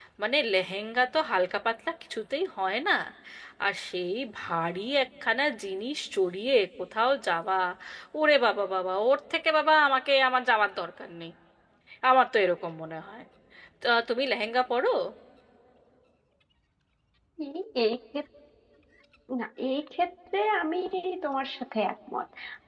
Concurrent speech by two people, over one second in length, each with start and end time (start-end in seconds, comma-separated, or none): none